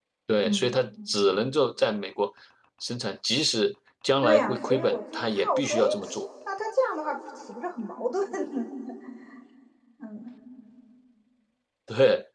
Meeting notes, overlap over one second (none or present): present